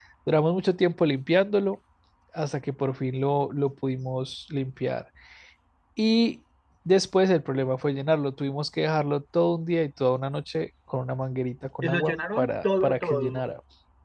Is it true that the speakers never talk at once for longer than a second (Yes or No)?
No